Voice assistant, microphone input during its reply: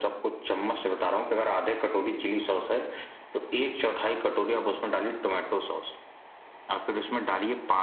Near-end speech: none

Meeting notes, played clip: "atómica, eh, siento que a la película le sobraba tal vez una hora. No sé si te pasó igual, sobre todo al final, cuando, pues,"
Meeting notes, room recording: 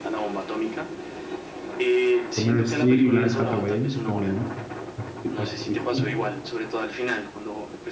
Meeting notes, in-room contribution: present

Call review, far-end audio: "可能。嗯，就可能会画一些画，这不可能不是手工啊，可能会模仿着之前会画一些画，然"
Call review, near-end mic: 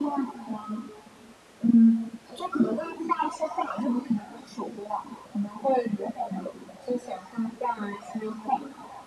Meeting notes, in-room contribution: none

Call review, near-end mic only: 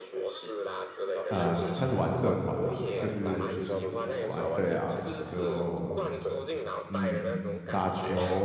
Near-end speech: present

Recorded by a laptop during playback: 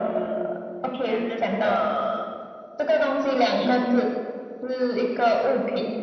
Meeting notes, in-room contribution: present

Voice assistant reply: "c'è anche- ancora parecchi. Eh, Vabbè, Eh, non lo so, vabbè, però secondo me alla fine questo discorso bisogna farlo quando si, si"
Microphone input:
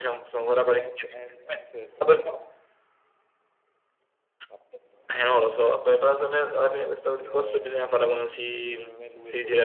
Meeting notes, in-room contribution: present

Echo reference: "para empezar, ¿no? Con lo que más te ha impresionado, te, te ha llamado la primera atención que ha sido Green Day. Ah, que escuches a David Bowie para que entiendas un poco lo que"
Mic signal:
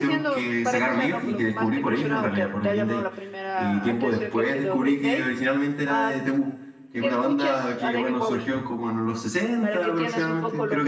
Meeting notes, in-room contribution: present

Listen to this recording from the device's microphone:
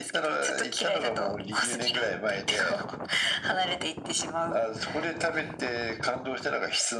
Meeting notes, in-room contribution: none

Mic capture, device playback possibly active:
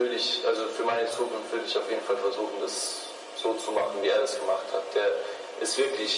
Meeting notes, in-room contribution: none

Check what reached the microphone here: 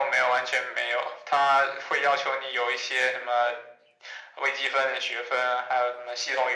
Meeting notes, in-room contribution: none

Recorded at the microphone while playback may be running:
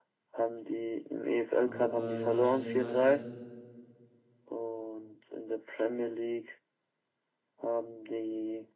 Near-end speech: present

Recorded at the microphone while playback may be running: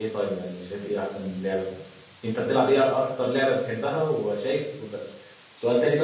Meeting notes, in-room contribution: present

